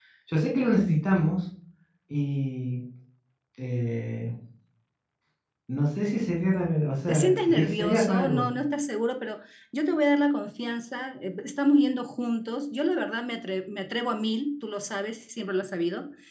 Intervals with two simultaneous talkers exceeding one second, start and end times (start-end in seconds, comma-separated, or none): 7.1-8.5